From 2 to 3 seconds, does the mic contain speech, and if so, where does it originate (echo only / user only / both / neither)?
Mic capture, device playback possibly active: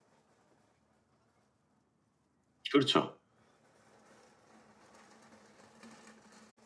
user only